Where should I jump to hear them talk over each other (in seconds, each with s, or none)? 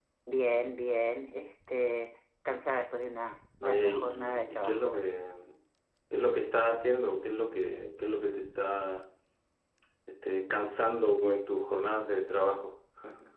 3.6 s